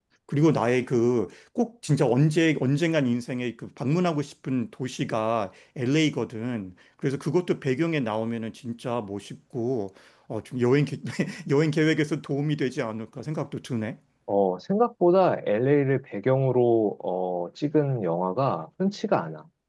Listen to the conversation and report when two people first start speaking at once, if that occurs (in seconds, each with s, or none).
none